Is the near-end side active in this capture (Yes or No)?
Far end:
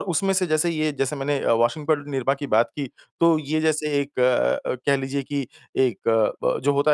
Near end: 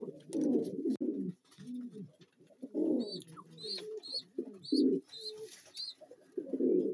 No